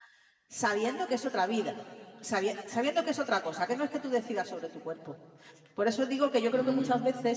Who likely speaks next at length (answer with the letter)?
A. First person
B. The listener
A